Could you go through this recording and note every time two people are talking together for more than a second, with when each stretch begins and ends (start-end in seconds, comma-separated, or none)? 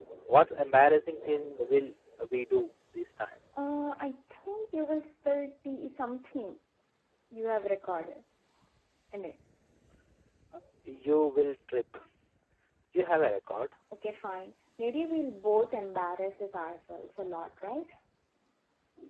none